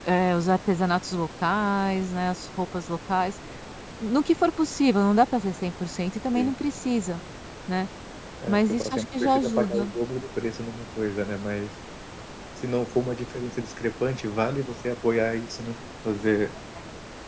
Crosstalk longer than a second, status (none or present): present